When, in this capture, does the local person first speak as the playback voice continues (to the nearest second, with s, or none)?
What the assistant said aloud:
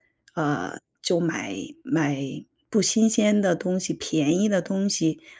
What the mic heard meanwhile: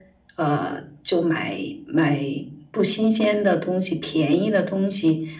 none